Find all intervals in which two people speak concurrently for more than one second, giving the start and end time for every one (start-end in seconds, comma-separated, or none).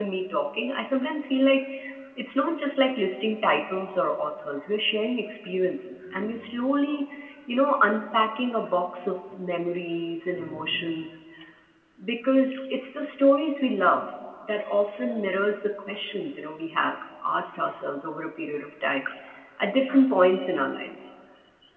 none